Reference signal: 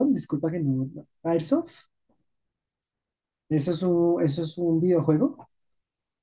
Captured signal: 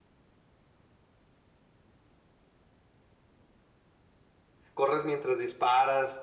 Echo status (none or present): none